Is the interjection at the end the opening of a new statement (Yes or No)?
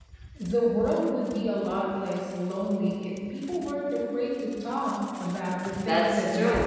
Yes